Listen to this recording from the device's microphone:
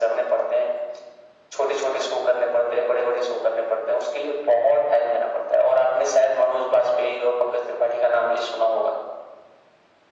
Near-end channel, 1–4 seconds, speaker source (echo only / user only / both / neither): echo only